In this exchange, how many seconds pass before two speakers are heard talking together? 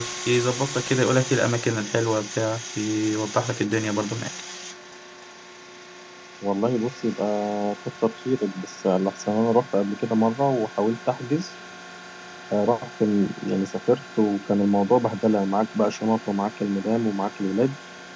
none

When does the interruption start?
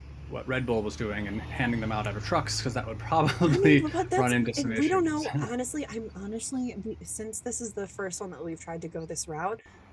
3.5 s

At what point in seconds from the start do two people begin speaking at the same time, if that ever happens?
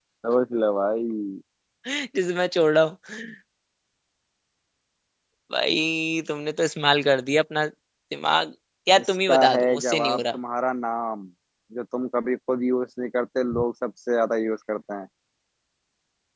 9.0 s

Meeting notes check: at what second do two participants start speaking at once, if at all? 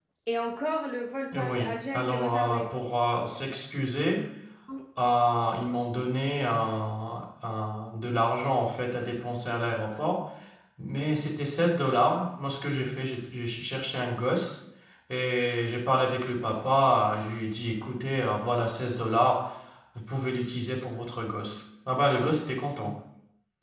1.3 s

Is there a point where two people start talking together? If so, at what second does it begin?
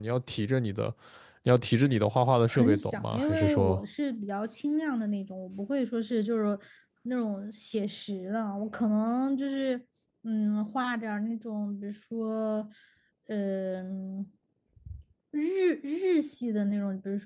2.5 s

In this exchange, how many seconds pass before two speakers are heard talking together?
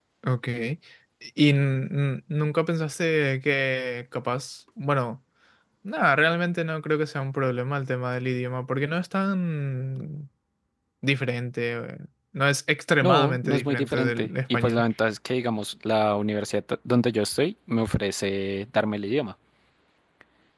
13.0 s

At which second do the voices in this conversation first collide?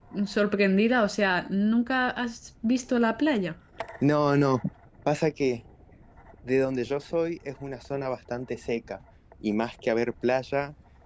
none

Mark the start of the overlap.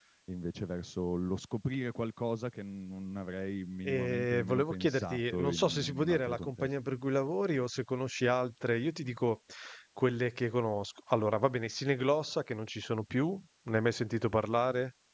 3.9 s

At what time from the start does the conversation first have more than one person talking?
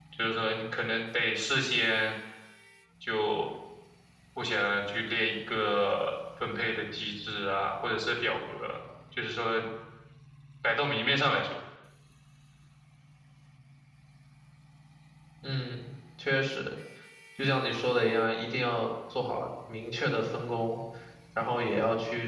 none

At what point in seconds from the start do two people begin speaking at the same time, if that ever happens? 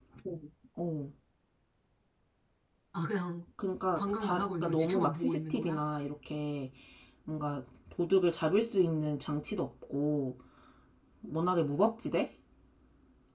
3.9 s

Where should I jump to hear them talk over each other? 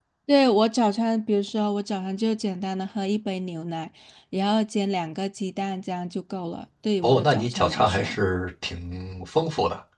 7.0 s

